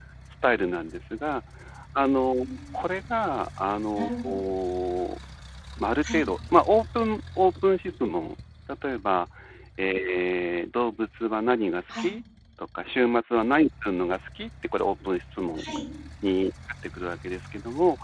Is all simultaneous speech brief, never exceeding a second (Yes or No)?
Yes